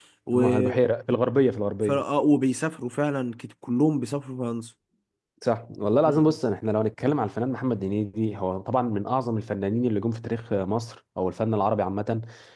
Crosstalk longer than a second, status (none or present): none